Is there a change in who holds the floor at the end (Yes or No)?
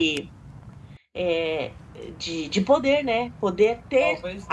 No